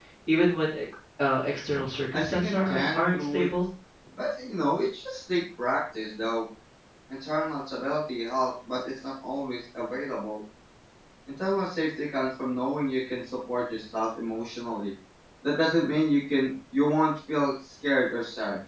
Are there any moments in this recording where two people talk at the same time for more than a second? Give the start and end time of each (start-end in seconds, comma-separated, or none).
2.1-3.5